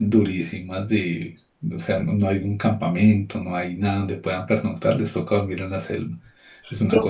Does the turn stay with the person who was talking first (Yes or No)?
No